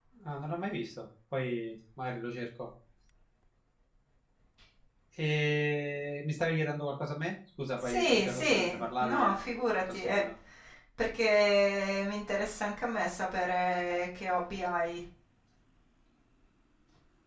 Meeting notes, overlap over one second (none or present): present